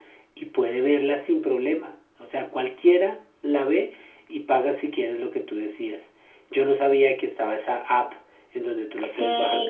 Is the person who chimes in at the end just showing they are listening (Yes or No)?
No